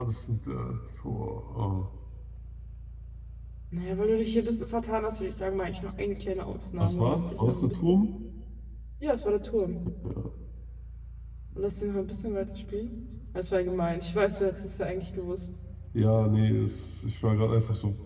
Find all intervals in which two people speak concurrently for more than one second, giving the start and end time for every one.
6.8-8.0

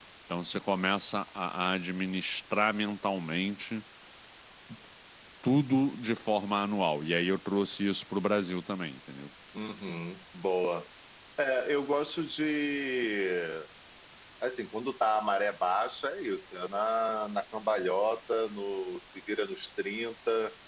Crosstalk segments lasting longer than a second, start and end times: none

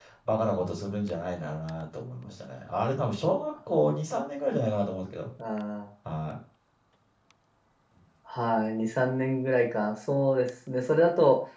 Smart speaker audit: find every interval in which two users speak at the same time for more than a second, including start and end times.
none

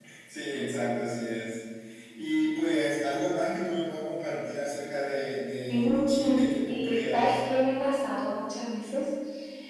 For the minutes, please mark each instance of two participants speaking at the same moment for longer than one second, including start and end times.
5.7-7.4

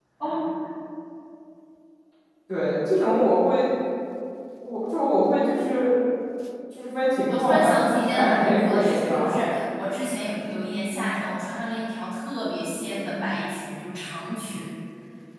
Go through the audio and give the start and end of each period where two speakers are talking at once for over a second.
7.3-9.5

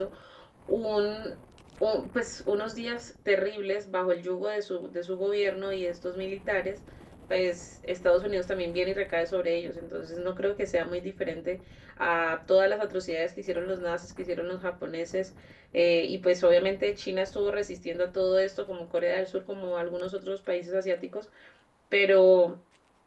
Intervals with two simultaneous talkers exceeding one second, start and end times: none

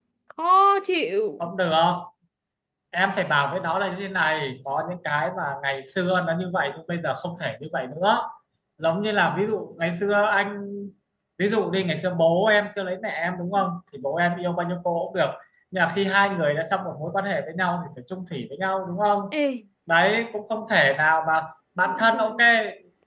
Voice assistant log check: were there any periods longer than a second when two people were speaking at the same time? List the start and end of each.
none

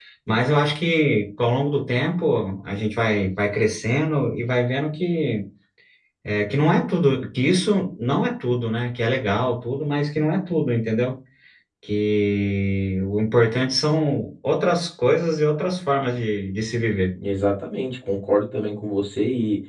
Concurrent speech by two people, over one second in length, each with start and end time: none

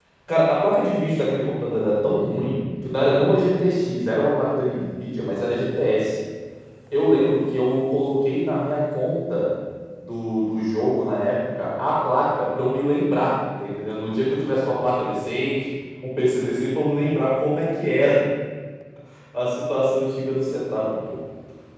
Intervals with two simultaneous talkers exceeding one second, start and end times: none

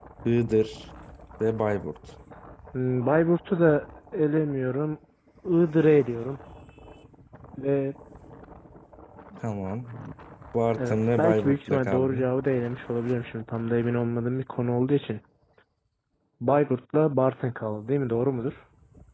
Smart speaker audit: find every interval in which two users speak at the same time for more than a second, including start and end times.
10.8-12.3

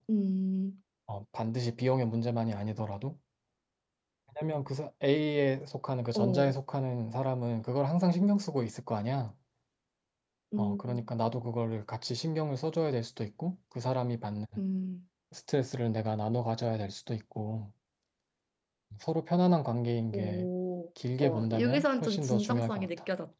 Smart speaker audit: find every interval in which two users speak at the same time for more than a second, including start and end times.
21.2-22.9

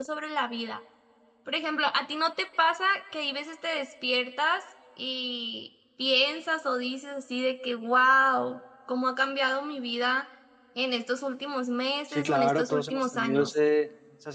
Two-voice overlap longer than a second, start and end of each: 12.1-13.5

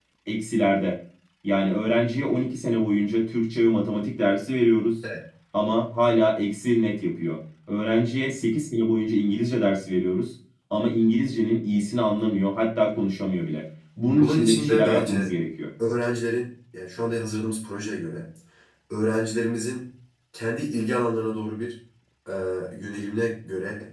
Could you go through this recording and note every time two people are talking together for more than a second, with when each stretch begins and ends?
14.0-15.3

